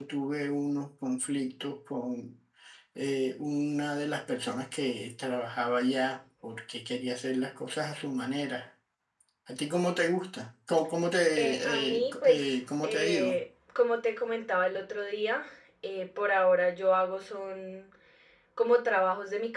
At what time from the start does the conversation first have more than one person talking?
11.4 s

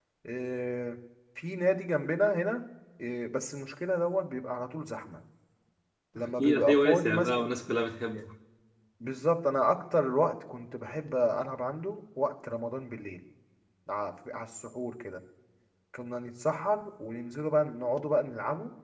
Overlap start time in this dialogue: 6.2 s

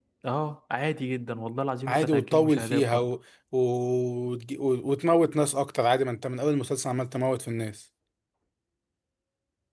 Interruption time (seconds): 1.9 s

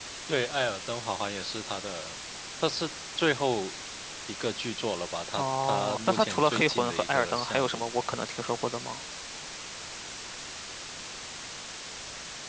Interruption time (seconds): 5.4 s

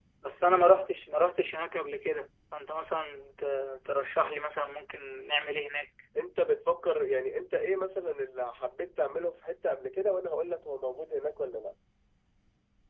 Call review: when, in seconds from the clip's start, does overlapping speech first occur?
none

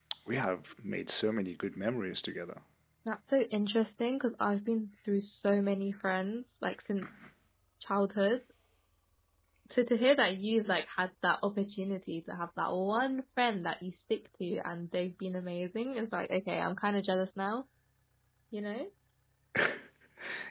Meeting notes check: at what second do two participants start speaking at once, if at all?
none

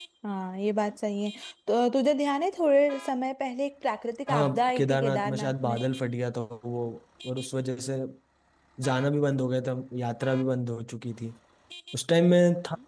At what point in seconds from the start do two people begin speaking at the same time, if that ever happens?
4.3 s

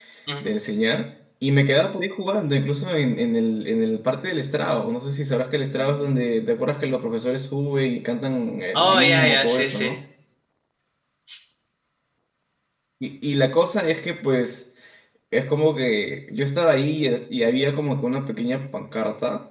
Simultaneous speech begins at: 8.7 s

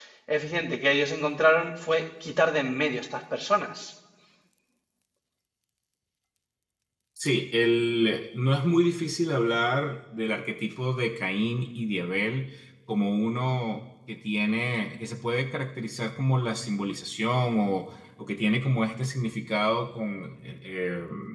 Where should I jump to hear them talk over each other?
none

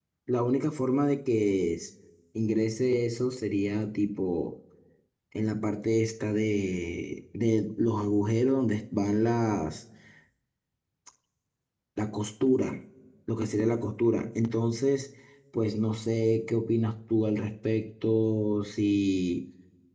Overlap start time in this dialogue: none

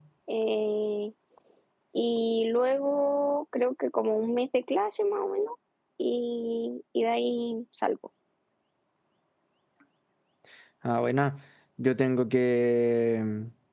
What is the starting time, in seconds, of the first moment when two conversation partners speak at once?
none

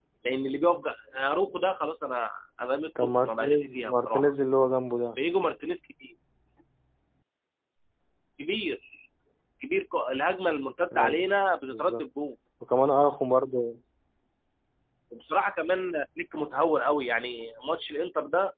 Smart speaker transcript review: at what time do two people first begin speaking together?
3.0 s

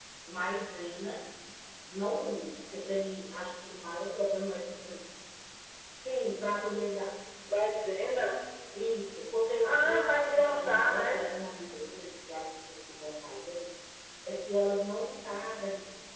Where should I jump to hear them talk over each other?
9.6 s

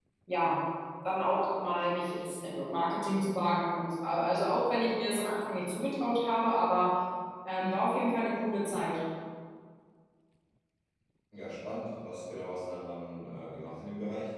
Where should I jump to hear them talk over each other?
none

